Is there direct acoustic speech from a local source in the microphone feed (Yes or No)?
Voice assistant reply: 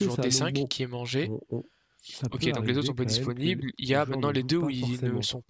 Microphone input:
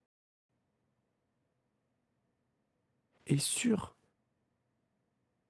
Yes